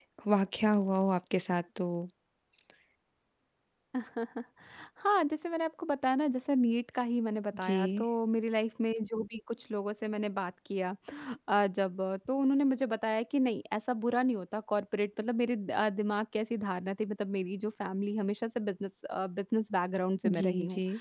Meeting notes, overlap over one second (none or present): none